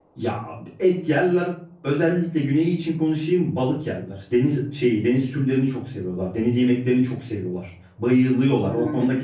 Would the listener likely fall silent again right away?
Yes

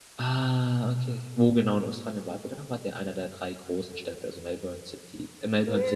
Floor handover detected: Yes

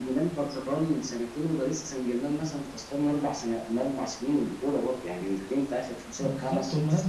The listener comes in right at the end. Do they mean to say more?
Yes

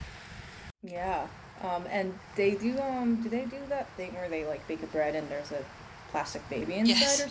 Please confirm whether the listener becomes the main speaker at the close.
Yes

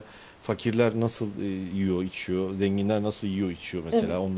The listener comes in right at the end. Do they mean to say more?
No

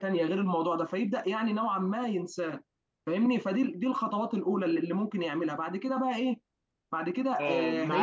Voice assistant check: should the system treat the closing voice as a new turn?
Yes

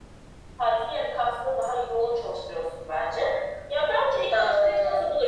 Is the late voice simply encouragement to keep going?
Yes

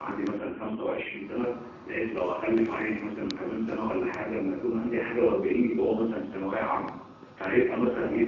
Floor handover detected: No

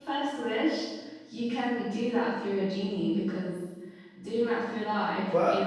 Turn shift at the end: Yes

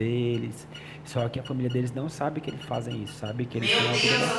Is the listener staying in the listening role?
No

